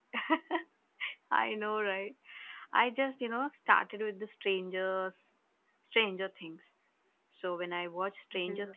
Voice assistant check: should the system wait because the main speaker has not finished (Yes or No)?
Yes